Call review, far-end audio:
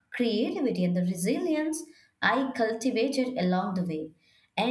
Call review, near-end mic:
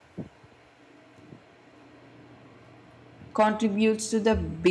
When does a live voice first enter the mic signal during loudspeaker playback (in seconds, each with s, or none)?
3.3 s